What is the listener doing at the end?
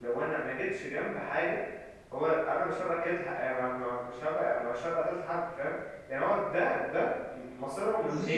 taking over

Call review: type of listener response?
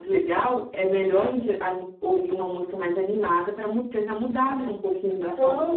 taking over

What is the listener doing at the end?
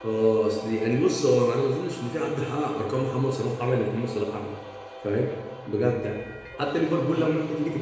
listening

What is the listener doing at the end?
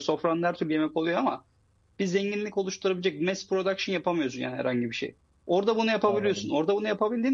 listening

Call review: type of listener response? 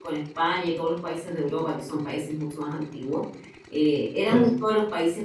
listening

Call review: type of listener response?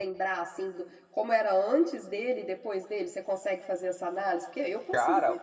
taking over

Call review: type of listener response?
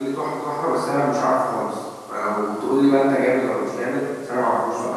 taking over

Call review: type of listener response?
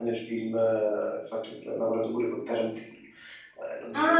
taking over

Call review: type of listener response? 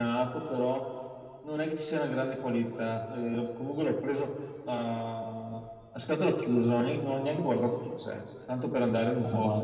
listening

